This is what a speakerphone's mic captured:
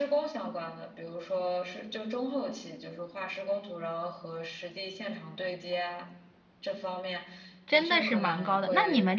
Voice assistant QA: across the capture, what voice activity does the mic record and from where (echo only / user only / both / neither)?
both